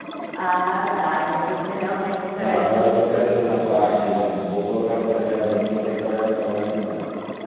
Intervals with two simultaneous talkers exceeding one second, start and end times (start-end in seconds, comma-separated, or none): 2.4-4.0